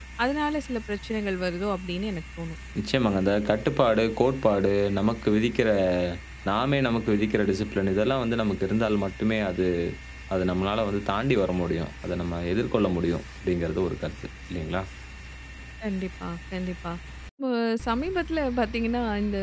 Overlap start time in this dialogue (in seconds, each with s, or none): none